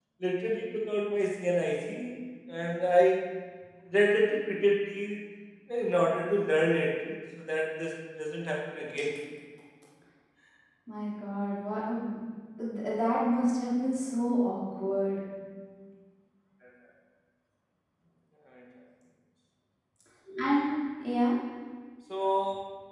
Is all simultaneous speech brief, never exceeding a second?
Yes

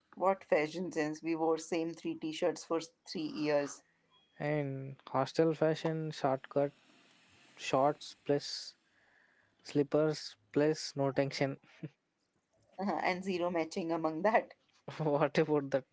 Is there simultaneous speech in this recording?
No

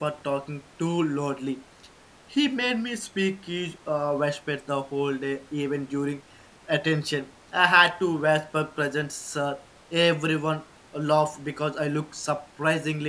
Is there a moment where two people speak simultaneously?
No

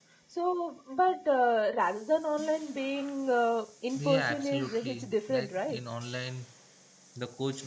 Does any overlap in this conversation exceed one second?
Yes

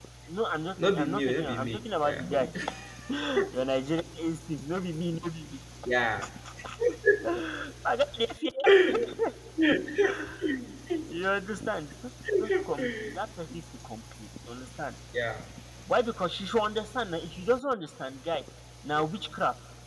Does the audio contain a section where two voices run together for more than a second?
Yes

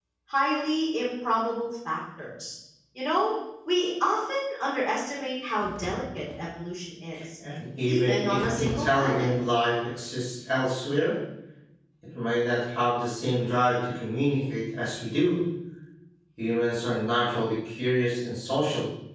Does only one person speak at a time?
No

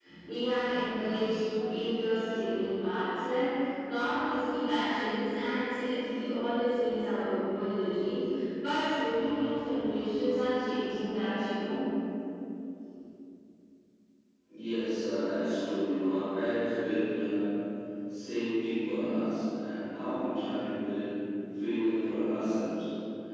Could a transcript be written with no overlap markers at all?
Yes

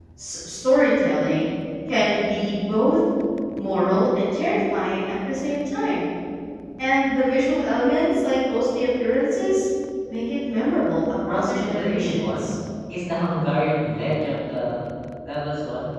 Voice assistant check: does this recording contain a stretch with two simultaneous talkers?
Yes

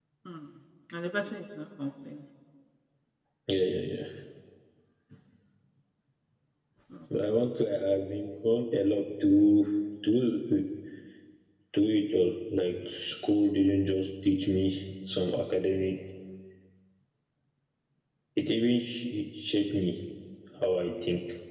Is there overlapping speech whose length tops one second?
No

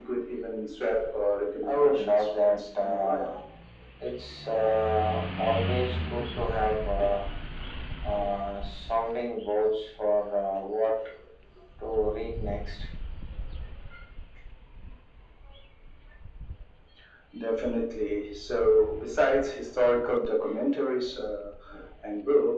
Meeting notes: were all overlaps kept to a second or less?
No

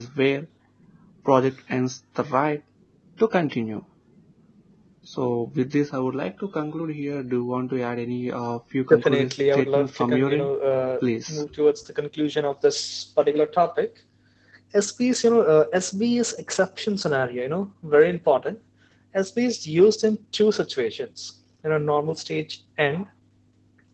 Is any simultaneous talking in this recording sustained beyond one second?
Yes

